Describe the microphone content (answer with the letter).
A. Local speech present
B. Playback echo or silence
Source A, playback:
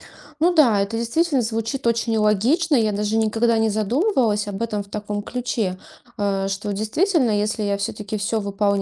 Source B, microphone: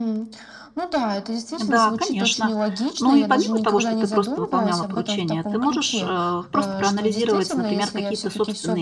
A